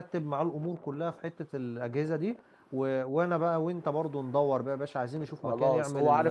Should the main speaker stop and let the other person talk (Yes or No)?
Yes